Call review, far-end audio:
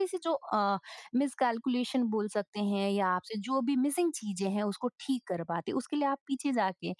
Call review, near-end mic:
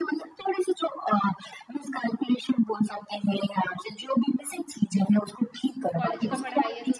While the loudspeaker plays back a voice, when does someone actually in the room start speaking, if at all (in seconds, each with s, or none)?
5.9 s